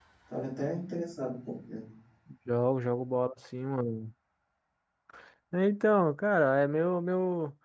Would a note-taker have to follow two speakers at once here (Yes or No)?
No